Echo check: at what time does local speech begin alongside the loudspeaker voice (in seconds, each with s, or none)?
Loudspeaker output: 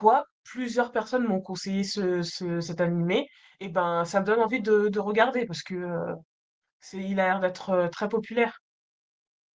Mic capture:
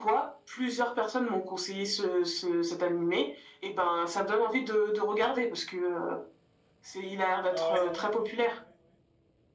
7.5 s